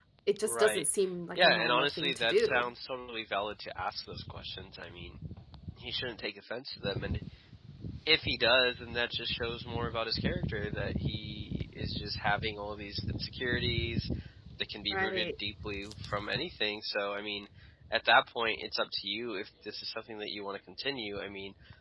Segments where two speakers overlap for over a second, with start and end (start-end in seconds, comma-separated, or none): 1.3-2.7